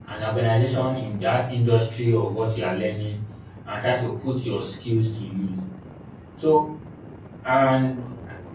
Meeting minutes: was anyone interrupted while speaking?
No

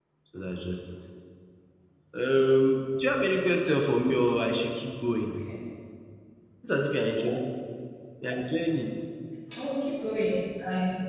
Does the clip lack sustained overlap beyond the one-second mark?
Yes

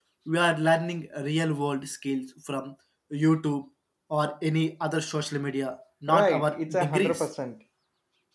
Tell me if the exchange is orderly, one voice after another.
No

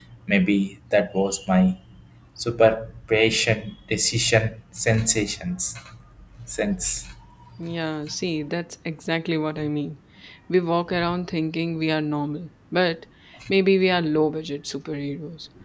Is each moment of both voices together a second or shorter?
Yes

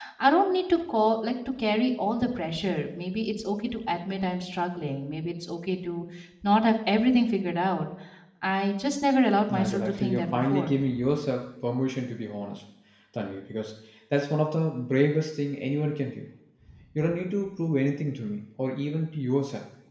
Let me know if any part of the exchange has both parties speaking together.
Yes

